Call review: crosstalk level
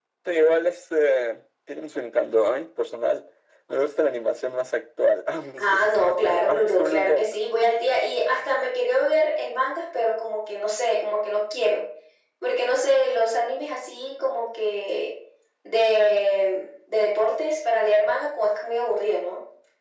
present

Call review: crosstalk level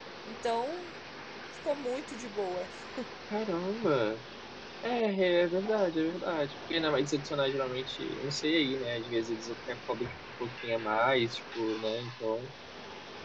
none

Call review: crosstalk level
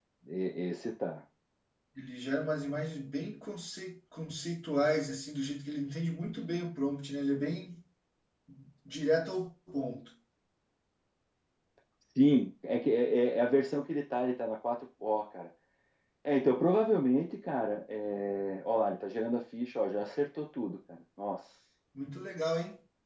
none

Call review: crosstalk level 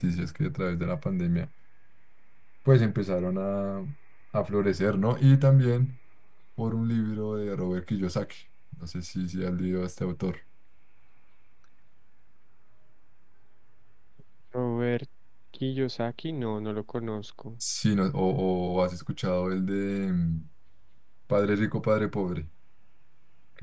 none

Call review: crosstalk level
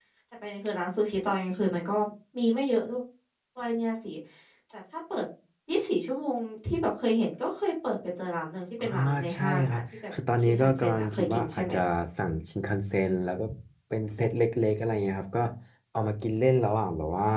present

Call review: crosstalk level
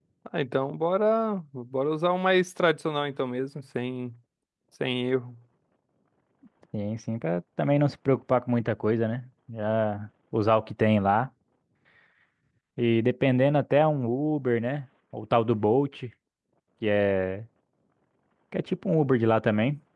none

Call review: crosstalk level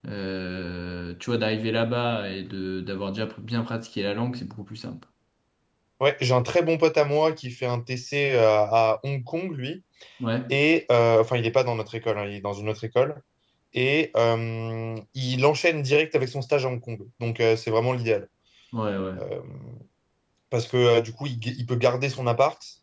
none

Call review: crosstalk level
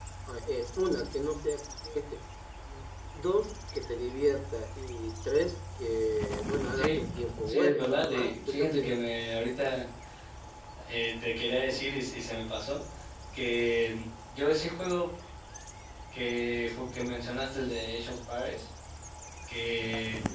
present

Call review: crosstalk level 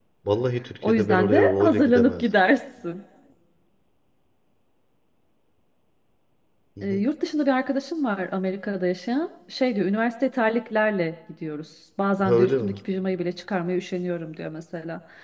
present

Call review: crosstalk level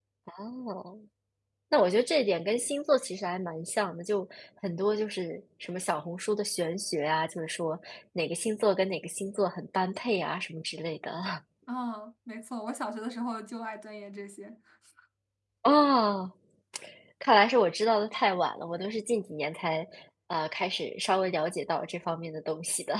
none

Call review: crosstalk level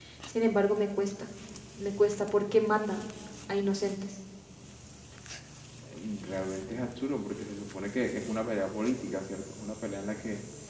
none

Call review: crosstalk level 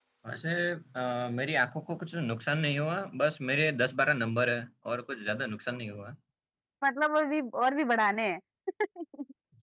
none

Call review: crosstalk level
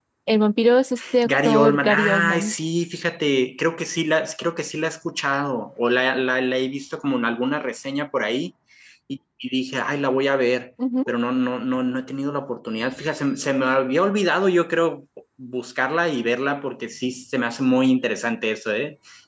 present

